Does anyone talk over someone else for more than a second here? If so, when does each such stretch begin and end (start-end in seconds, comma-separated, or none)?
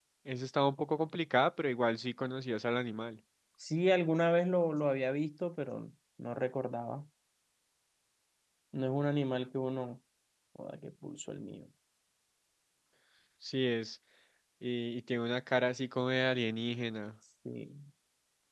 none